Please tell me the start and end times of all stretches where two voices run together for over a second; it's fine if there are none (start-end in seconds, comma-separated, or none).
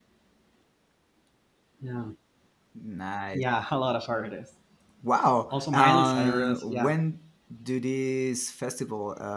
5.5-7.0